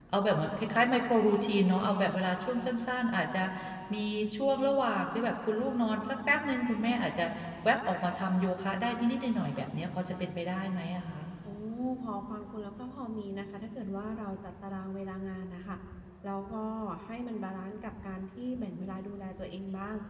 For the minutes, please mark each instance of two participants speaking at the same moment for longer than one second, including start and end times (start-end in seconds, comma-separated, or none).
none